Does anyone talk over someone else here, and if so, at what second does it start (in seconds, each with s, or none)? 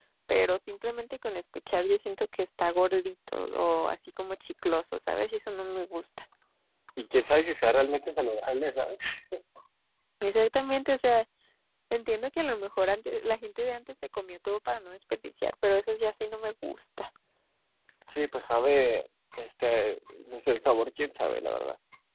none